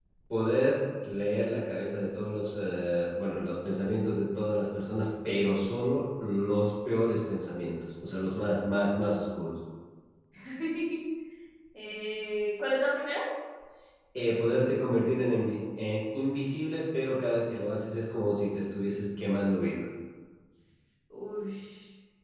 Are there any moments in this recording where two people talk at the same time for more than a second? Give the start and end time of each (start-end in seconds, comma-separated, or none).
none